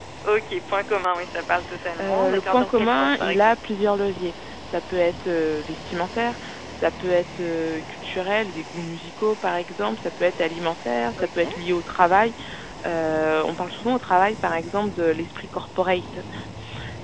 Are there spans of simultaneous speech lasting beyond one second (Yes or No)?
Yes